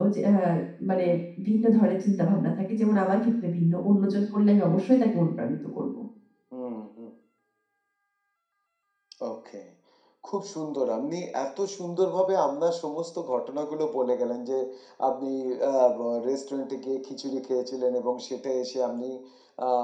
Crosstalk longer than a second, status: none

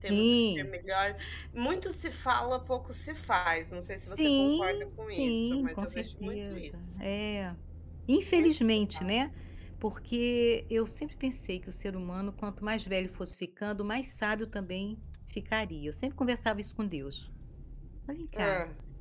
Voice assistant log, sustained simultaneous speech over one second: present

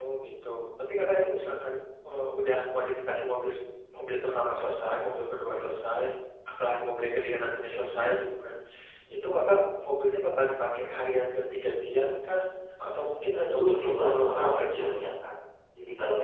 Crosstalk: present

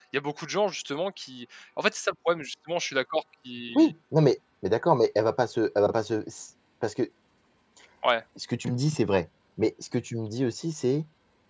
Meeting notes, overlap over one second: none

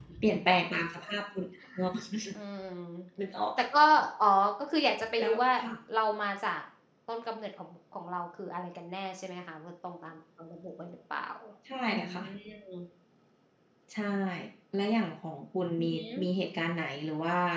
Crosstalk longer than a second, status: none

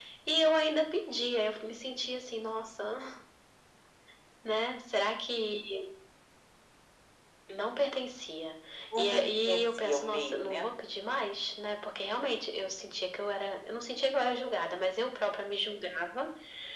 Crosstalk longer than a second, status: present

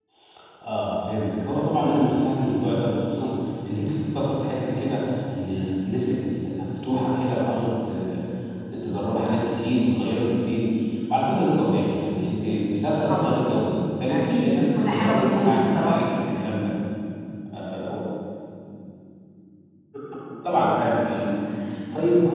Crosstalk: present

